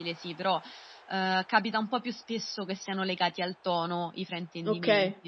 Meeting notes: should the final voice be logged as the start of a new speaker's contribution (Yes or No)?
Yes